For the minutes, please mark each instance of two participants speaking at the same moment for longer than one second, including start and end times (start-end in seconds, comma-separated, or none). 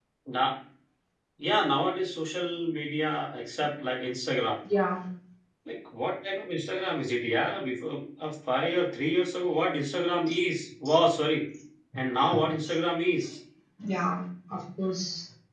none